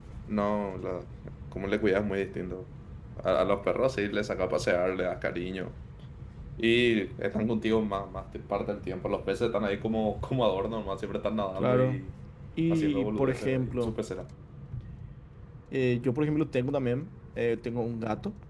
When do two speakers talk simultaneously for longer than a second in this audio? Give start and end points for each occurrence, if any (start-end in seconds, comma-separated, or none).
12.7-13.9